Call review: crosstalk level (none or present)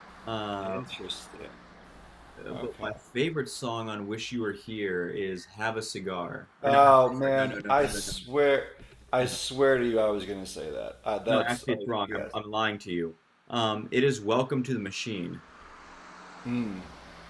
present